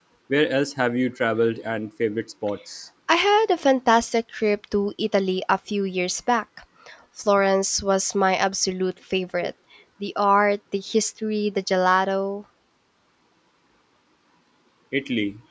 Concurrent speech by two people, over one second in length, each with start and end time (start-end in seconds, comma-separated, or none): none